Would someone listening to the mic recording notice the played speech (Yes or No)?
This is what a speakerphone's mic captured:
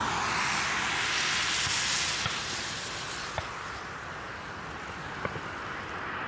No